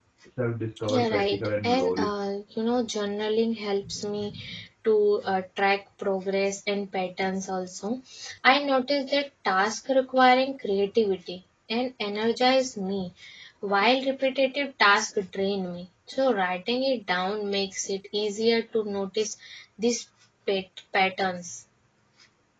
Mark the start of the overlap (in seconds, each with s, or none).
0.9 s